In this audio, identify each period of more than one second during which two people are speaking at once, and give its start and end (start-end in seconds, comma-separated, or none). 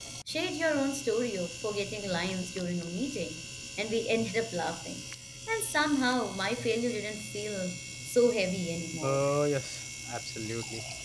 none